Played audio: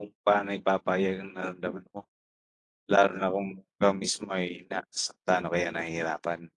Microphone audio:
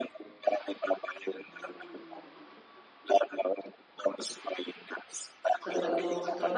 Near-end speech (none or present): present